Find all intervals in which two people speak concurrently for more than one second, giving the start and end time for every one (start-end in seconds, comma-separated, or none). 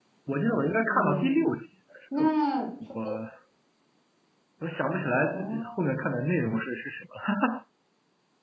none